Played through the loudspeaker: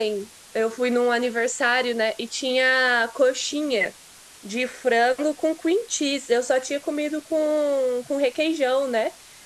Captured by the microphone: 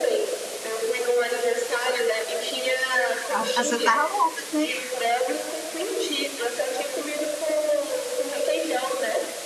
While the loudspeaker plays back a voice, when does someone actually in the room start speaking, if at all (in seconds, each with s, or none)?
3.3 s